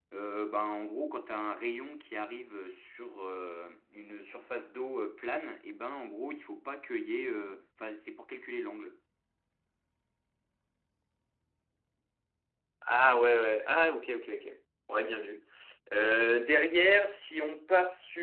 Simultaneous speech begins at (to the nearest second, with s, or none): none